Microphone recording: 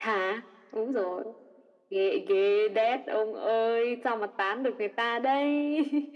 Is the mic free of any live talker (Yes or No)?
Yes